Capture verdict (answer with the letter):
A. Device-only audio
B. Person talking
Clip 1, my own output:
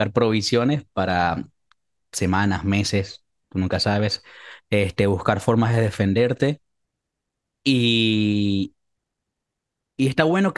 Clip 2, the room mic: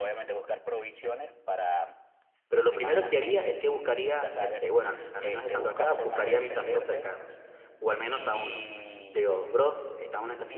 B